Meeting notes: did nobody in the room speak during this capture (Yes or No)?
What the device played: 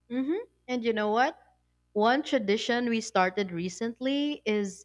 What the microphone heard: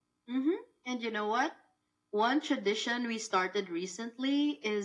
Yes